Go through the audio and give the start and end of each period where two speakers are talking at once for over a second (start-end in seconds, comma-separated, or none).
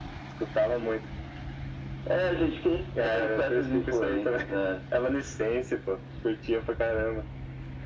3.0-4.4